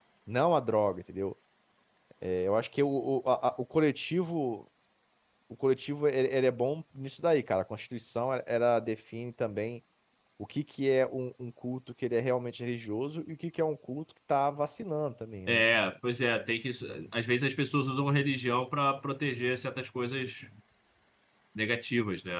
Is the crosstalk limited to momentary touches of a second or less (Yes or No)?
Yes